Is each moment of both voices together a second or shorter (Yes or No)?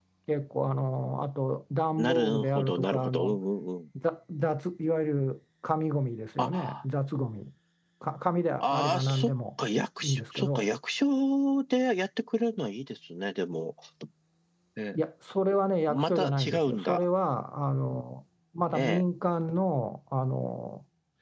No